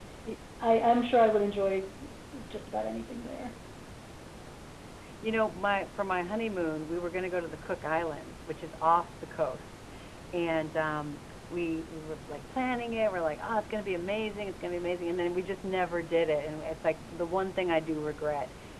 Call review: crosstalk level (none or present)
none